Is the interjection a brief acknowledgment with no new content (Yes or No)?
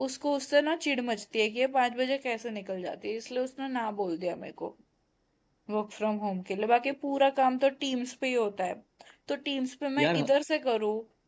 Yes